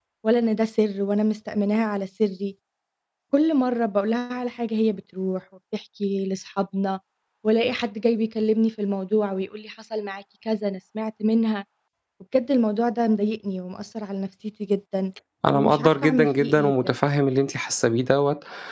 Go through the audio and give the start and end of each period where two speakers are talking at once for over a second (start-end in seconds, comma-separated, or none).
15.5-16.7